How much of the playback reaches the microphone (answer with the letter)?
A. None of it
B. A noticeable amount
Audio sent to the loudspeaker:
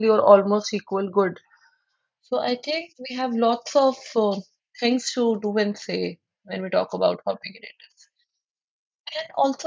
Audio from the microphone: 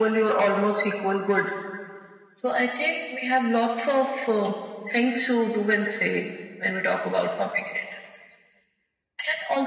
B